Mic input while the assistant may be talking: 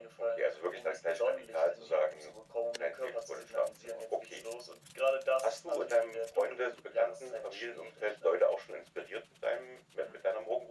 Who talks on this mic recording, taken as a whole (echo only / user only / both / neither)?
echo only